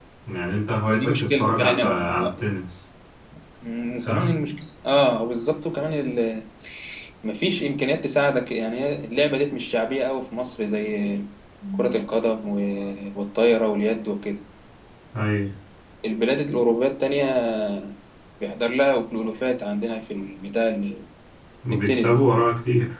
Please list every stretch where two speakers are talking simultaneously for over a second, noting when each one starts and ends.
0.9-2.4

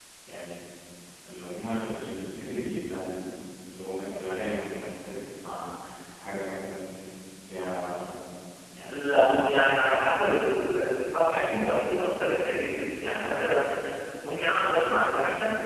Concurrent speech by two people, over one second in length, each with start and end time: 8.9-10.4

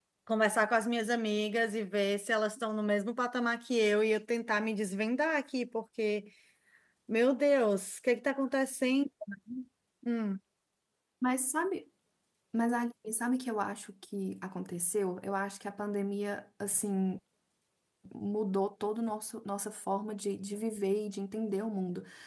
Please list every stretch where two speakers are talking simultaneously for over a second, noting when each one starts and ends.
none

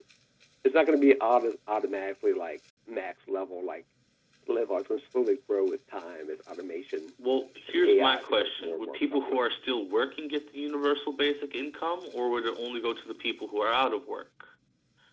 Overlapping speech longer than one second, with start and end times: 7.7-9.4

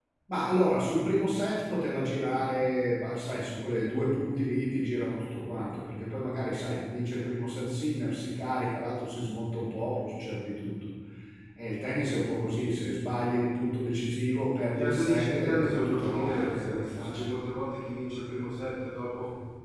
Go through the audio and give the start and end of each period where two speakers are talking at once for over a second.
14.8-17.2

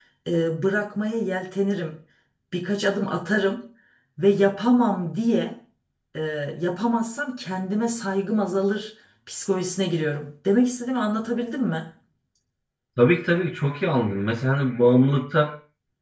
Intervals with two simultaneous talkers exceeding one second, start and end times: none

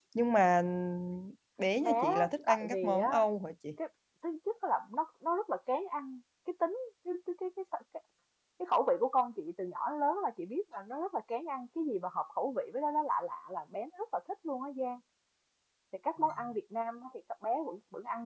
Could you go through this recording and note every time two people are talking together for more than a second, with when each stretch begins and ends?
1.8-3.2

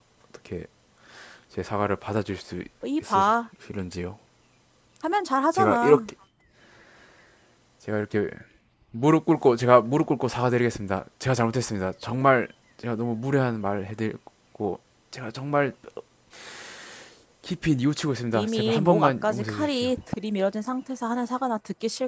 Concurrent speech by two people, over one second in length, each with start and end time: 18.3-19.9

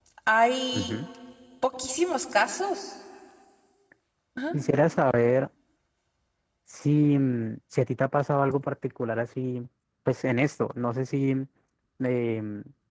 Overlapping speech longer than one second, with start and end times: none

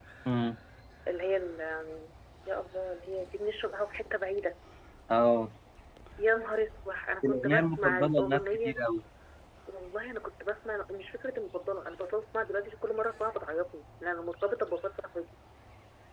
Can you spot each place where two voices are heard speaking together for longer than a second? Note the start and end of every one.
7.2-8.8

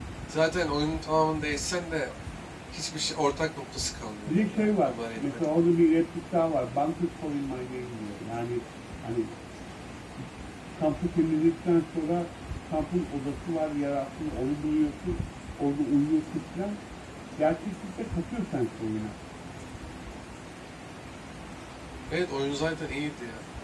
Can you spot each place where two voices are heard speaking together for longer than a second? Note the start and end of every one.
4.3-5.5

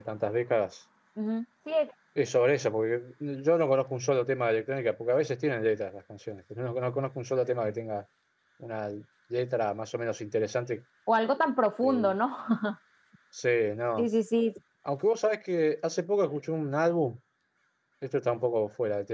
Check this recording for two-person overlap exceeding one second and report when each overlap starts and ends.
none

